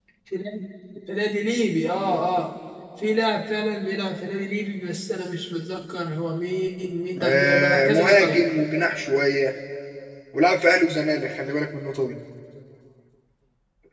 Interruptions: present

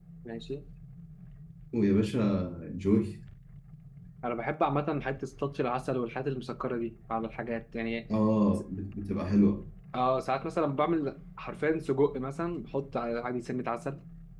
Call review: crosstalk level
none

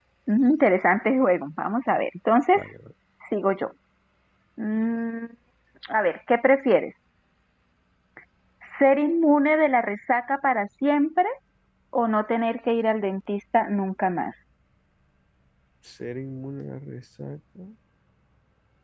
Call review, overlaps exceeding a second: none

